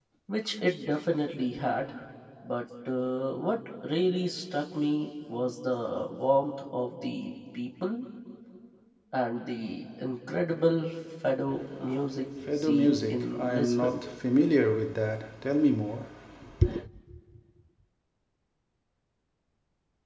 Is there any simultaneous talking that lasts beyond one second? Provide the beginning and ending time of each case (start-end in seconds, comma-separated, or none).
12.6-14.0